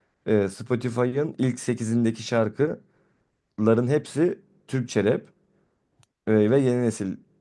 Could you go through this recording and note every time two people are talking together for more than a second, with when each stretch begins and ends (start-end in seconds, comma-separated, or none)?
none